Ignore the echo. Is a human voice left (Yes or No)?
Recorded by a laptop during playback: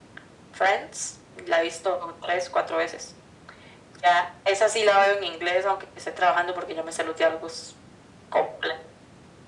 No